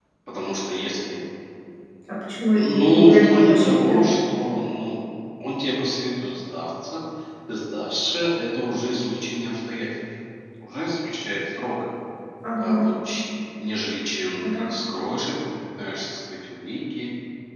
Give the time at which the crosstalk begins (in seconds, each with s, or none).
2.6 s